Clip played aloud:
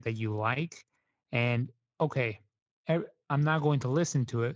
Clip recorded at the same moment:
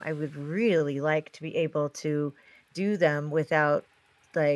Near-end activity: present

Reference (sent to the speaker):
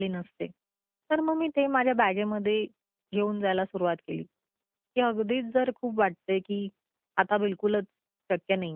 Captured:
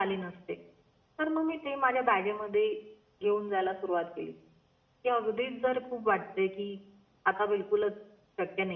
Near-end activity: none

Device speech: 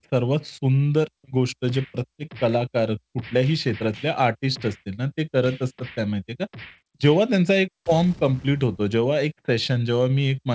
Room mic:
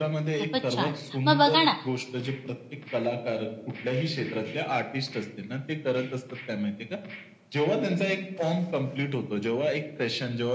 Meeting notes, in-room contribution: present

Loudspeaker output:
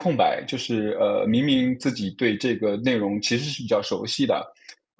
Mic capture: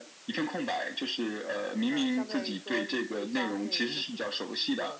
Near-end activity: present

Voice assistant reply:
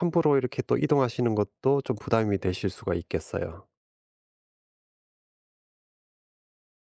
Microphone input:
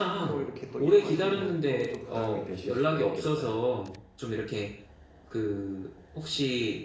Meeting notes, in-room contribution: present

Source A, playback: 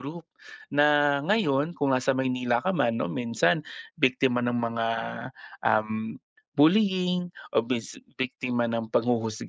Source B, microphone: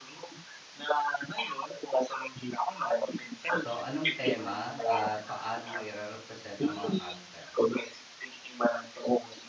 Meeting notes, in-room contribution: present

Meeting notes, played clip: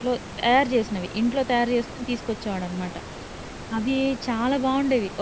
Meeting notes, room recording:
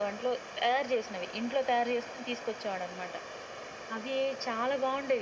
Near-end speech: none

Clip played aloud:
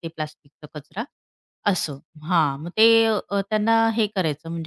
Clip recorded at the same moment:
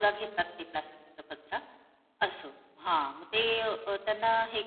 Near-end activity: none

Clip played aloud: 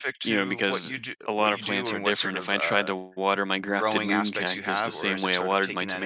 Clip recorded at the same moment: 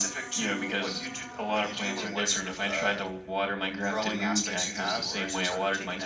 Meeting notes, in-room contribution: none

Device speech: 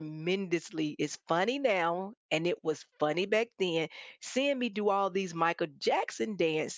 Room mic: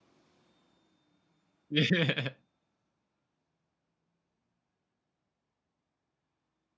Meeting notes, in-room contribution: present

